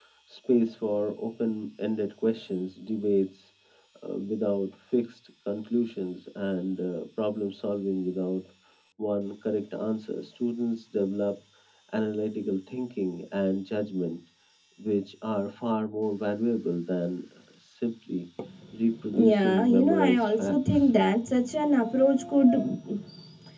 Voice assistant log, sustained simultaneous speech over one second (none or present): present